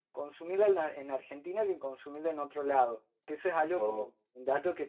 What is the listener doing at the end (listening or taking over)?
listening